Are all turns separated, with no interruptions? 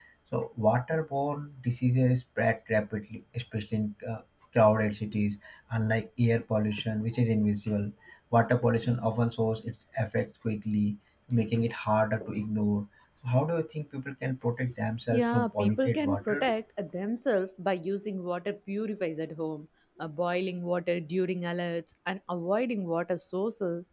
No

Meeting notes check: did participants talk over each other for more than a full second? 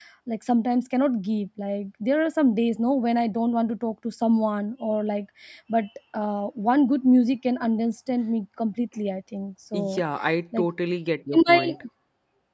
No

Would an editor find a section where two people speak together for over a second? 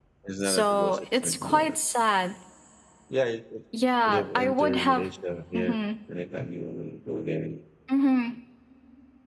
Yes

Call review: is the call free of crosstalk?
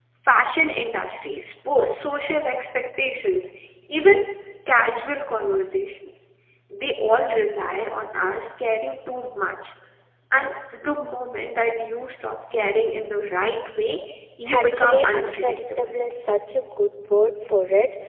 No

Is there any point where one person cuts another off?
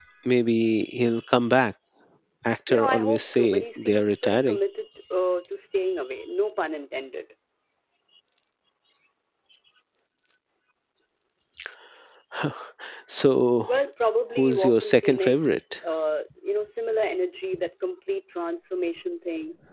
Yes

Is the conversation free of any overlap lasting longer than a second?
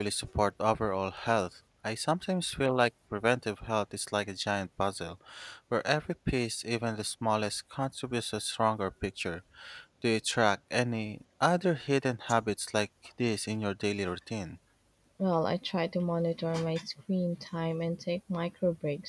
Yes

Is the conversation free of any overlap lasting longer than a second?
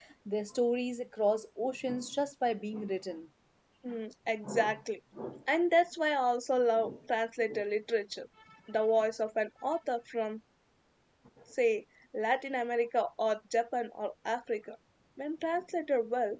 Yes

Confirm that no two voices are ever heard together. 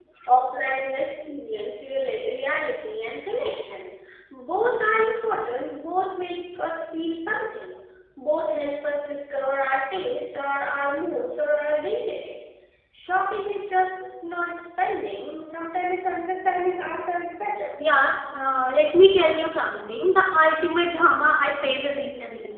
Yes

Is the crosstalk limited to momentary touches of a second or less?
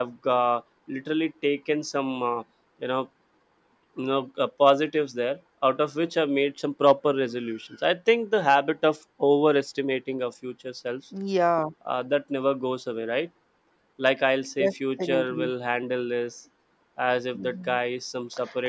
Yes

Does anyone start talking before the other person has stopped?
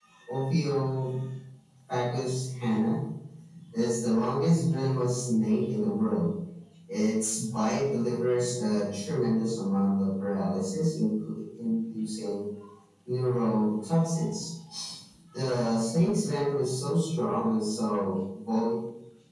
No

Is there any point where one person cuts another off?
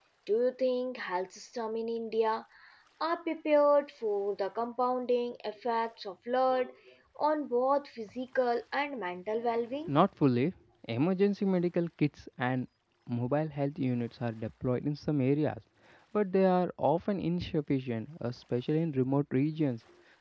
No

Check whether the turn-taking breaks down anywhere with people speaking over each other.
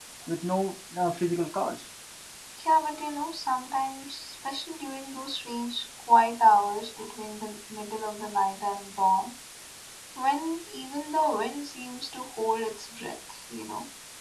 No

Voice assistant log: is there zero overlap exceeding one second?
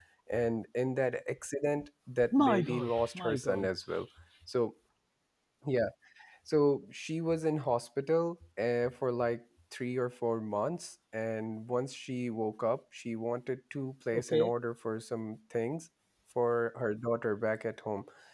No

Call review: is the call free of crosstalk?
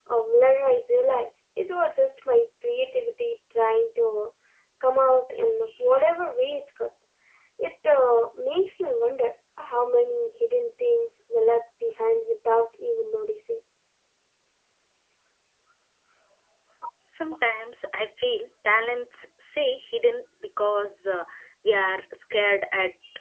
Yes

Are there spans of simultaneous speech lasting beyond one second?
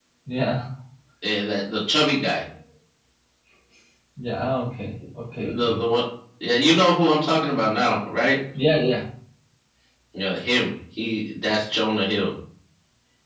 No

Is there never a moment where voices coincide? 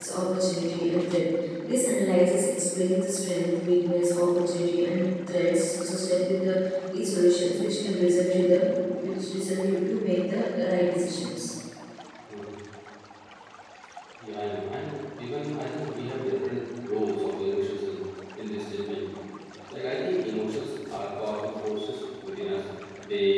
Yes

